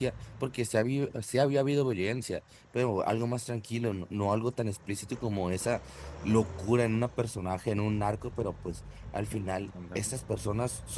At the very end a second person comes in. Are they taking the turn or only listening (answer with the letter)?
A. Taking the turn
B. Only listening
B